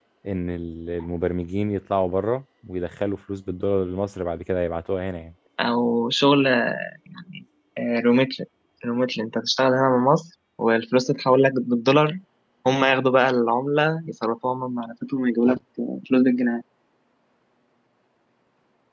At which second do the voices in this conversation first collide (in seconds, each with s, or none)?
none